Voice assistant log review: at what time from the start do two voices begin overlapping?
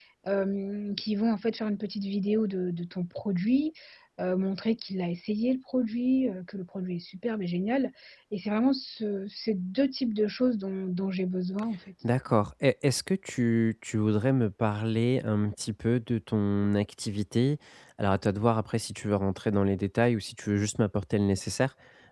none

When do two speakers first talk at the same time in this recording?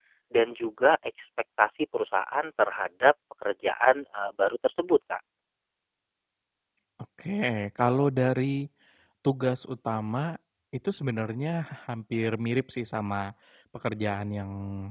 none

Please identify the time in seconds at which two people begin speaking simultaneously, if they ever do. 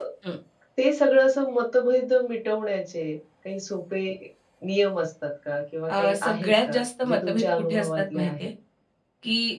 5.9 s

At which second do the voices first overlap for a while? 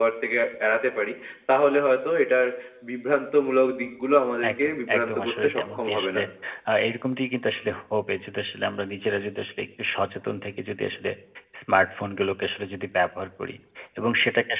4.4 s

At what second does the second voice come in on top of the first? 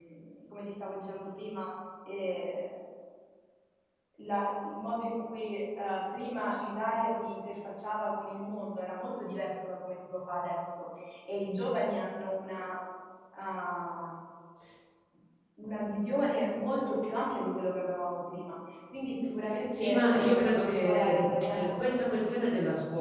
19.6 s

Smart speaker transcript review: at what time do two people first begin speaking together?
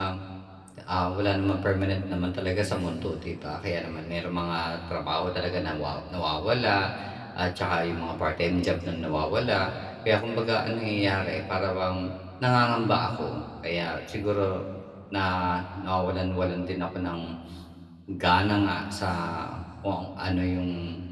none

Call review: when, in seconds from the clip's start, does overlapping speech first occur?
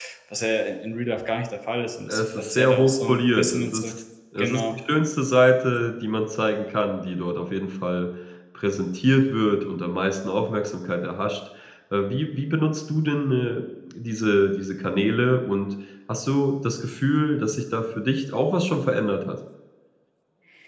2.1 s

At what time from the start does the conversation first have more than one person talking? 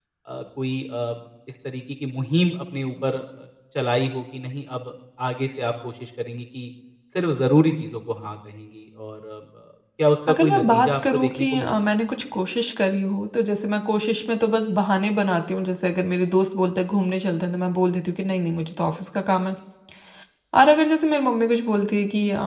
10.3 s

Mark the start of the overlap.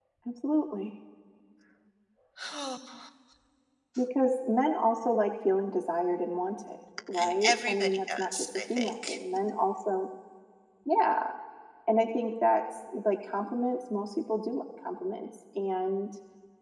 7.1 s

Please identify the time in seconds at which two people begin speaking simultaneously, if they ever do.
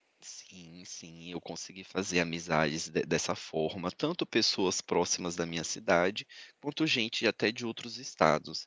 none

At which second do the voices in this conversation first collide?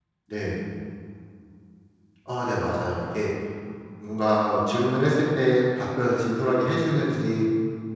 none

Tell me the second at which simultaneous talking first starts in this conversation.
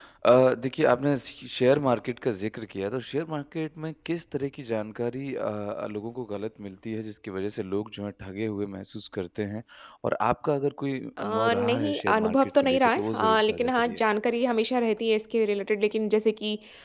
11.2 s

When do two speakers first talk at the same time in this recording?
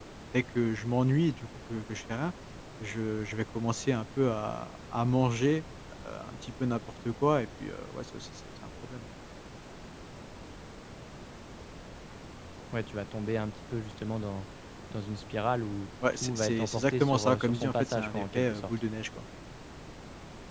16.0 s

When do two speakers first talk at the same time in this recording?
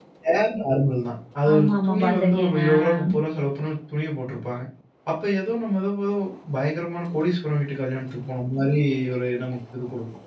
1.4 s

